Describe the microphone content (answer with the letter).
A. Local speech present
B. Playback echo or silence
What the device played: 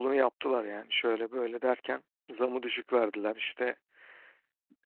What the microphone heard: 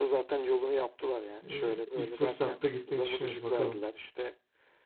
A